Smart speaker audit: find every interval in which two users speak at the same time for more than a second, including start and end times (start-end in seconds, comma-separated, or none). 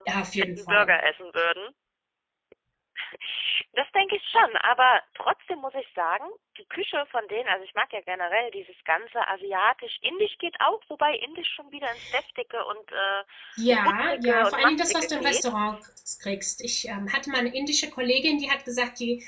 13.8-15.5